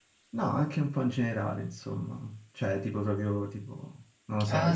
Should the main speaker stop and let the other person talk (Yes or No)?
Yes